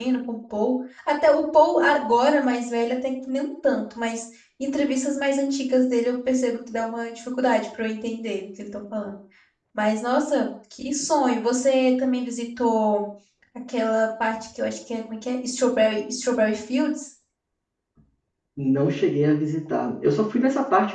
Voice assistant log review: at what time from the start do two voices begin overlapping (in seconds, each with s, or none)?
none